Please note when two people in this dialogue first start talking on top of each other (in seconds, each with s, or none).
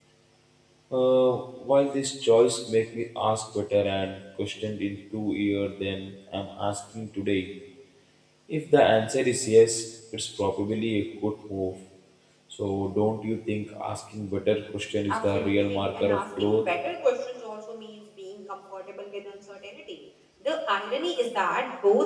15.1 s